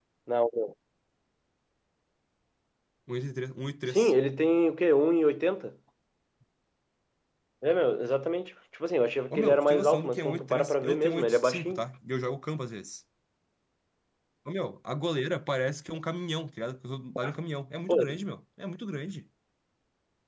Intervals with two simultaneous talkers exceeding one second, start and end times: 9.3-11.8

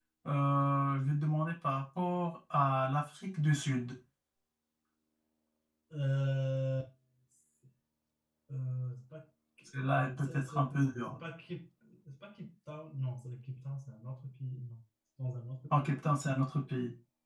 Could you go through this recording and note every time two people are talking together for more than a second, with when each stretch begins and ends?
9.8-11.2

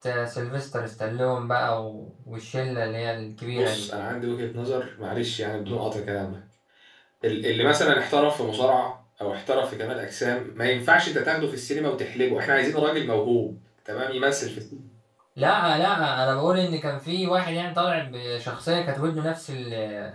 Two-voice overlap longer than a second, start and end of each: none

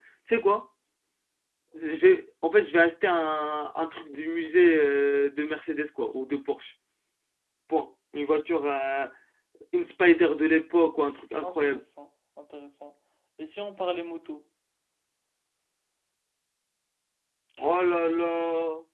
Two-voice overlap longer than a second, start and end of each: none

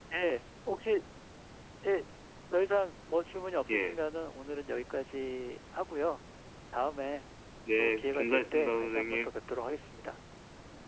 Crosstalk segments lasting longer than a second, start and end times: 7.8-9.3

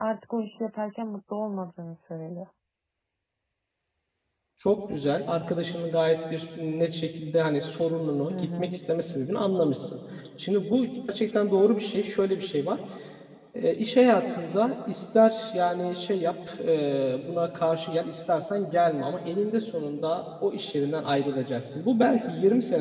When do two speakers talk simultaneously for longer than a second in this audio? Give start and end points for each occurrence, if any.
none

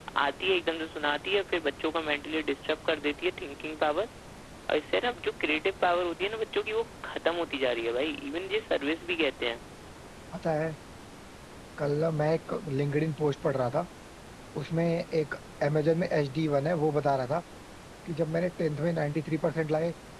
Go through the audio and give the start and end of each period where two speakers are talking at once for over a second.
none

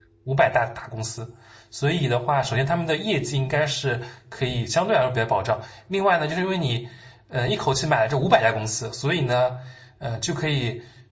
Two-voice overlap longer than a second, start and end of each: none

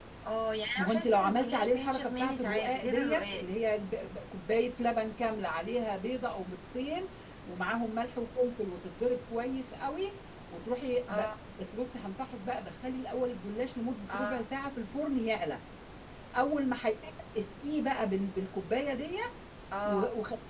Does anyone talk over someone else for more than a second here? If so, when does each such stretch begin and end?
0.8-3.4

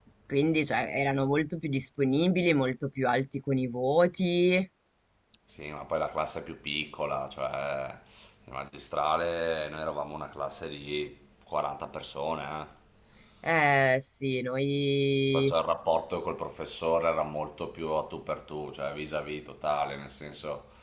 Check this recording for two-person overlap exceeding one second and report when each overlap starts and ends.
none

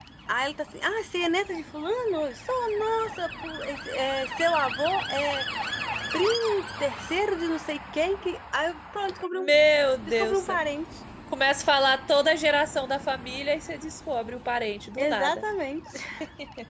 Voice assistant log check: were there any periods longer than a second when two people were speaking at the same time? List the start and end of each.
none

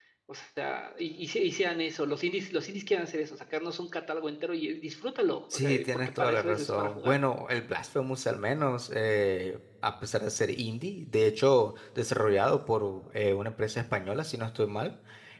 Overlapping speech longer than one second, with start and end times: 5.5-7.1

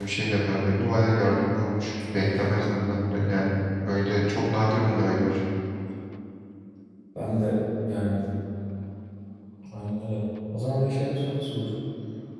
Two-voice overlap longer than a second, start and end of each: none

